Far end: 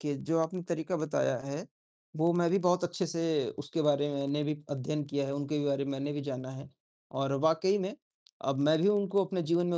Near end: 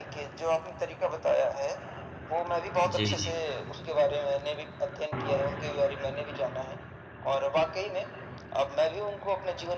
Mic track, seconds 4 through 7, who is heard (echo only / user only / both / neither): echo only